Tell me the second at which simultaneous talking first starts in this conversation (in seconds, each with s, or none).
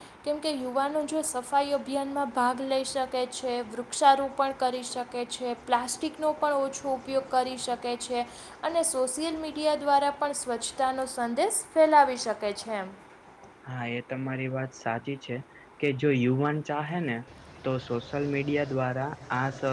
none